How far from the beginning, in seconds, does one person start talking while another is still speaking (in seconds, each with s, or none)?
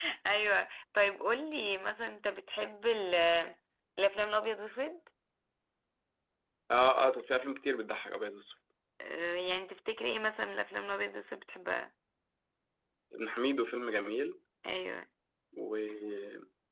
none